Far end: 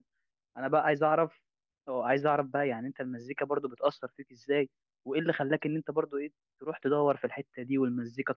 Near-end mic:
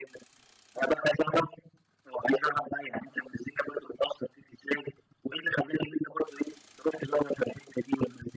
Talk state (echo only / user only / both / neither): echo only